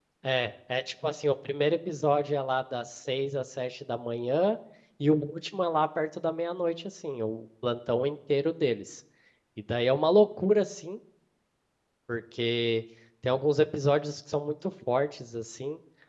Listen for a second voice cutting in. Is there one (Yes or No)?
No